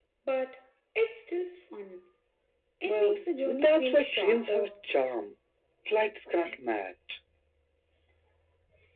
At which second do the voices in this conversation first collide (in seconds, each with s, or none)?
2.9 s